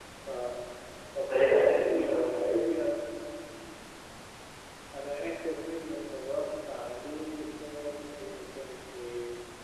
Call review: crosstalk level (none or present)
present